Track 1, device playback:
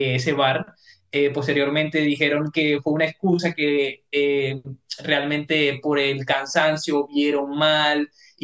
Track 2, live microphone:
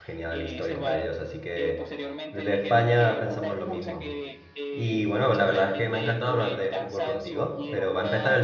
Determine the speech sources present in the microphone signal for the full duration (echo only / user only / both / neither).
both